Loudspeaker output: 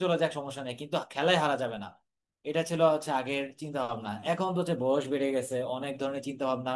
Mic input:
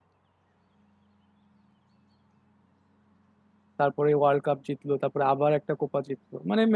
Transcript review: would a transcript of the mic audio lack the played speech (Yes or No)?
Yes